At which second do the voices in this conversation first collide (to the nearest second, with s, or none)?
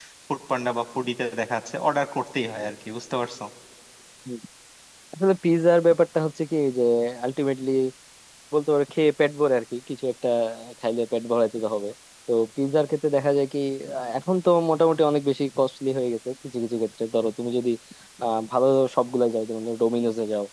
none